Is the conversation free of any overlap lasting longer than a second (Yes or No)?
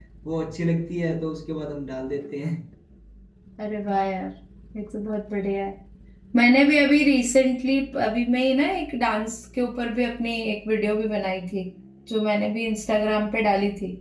Yes